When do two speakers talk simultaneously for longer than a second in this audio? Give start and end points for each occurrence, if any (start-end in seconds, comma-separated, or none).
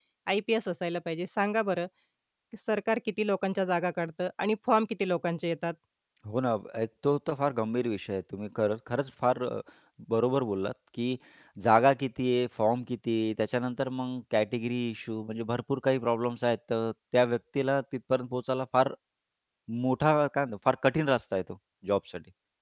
none